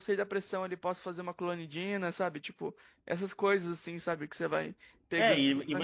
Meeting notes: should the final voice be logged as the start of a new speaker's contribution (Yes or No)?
Yes